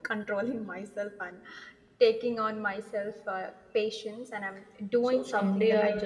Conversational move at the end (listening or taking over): taking over